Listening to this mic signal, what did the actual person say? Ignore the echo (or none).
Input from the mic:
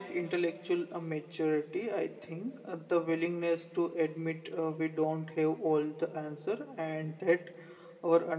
none